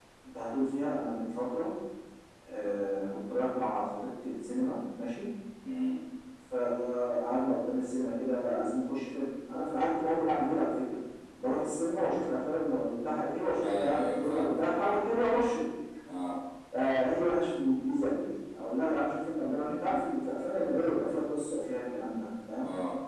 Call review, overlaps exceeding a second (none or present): present